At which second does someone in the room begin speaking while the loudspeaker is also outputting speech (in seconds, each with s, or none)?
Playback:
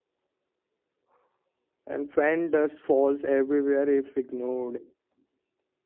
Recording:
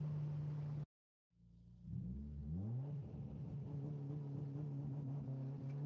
none